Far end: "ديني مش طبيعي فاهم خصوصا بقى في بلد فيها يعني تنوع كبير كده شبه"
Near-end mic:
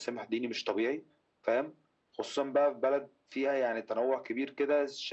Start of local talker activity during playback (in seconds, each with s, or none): none